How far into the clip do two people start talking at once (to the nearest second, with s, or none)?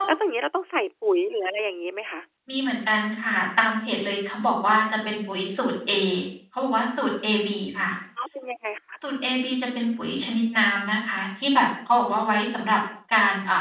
none